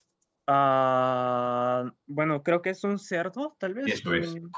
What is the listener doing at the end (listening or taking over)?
taking over